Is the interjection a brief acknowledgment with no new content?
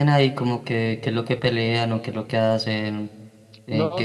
No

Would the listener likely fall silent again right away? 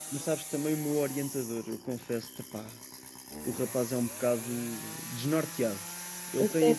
Yes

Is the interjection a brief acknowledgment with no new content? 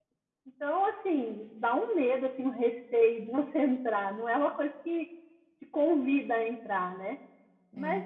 Yes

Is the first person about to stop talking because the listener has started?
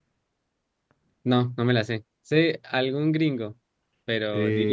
Yes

